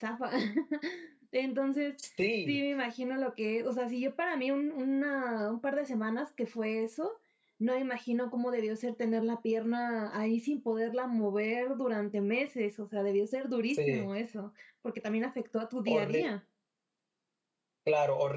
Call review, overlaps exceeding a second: none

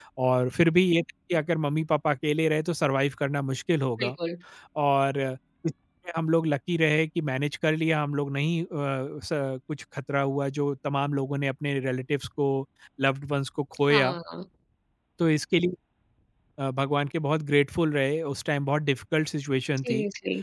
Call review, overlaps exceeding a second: none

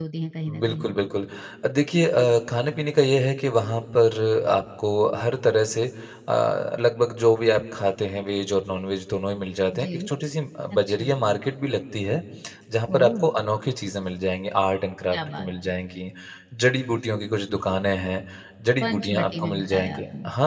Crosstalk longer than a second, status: present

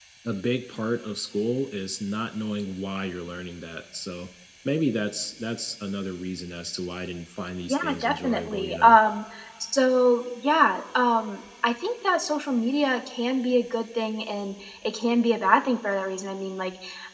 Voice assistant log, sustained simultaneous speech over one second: present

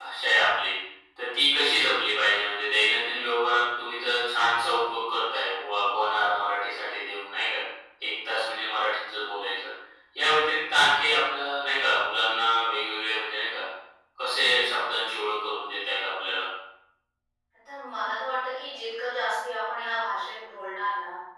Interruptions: none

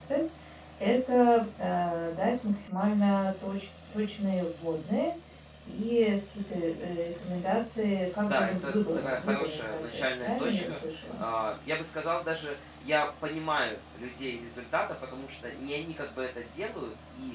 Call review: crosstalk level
present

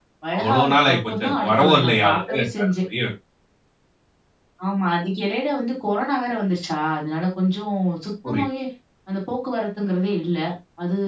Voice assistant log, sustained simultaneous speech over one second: present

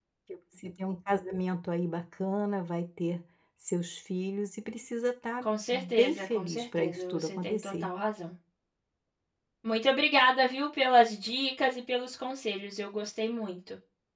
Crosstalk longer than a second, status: present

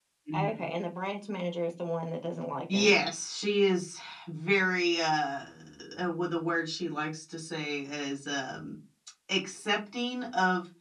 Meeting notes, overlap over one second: none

